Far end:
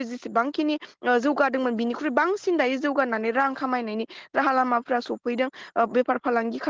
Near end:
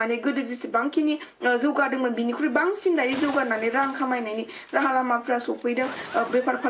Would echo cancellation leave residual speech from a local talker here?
No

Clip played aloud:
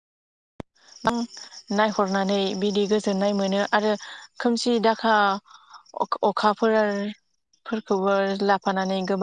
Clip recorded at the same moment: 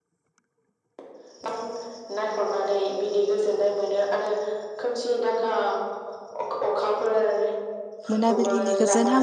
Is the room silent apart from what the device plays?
No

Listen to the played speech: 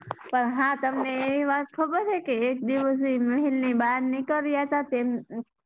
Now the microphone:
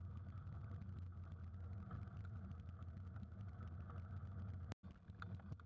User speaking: No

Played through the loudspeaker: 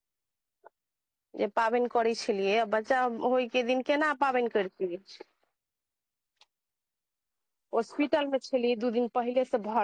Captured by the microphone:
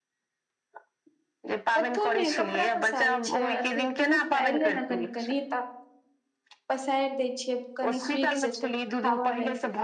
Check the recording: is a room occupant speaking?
Yes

